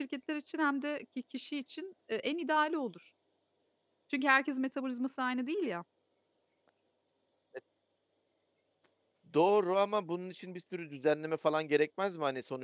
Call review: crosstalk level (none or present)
none